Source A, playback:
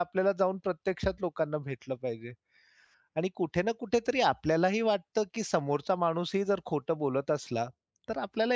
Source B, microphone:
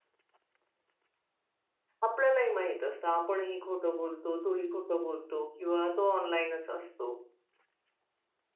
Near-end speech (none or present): present